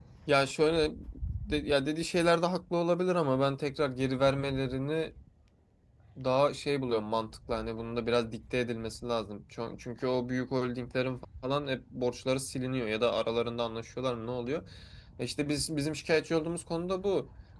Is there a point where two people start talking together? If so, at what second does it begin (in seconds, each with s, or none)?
none